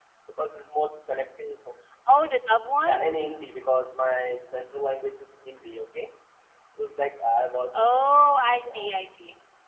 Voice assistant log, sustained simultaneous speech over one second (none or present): none